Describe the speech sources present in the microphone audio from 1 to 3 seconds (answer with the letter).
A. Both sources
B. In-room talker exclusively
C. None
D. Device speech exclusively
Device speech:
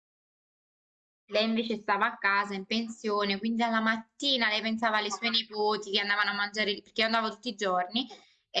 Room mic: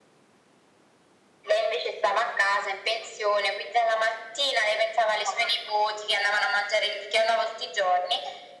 D